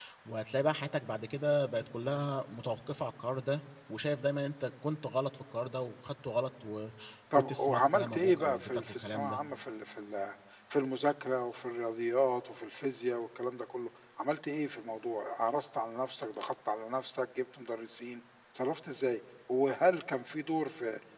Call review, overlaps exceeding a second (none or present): present